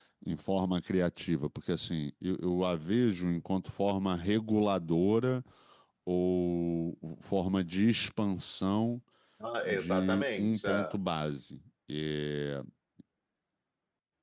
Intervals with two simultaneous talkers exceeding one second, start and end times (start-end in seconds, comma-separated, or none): 9.6-11.0